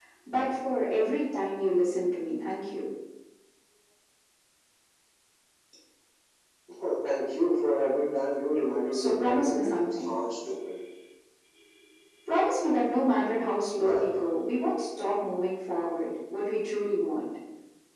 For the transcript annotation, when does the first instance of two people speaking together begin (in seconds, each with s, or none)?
8.9 s